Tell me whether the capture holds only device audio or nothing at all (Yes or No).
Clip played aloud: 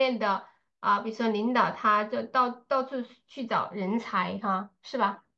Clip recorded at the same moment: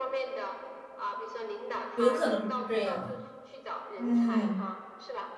No